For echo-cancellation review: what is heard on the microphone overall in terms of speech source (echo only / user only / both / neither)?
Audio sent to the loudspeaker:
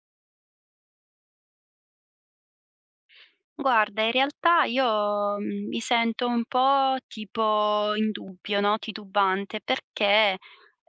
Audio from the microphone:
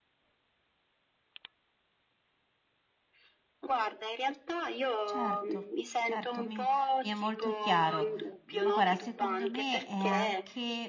both